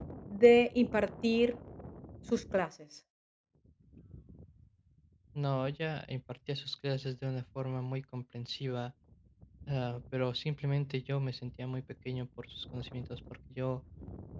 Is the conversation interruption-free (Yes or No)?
Yes